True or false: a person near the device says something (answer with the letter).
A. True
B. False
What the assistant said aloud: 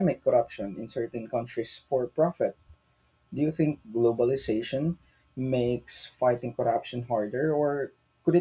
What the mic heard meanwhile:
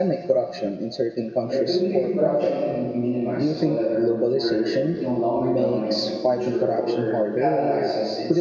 A